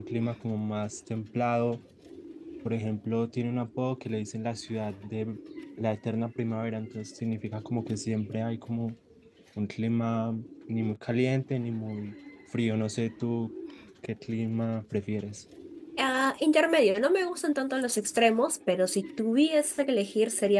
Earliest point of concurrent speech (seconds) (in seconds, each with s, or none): none